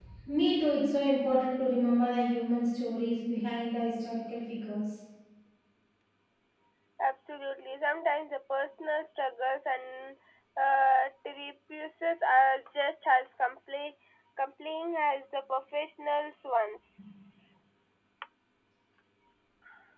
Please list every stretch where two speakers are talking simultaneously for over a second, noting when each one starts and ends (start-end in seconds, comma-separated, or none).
none